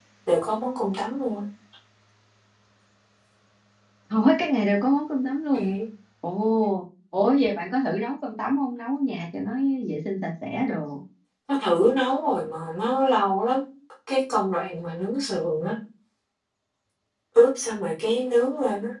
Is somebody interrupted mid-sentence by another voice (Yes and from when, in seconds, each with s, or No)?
No